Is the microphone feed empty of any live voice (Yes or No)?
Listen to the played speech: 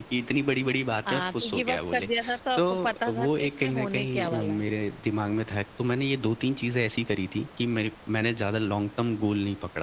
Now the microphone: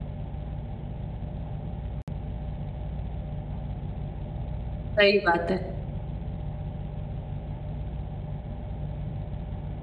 No